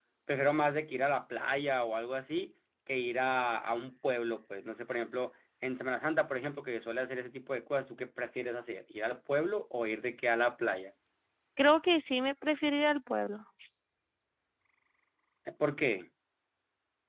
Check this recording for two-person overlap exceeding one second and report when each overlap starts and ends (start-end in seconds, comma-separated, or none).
none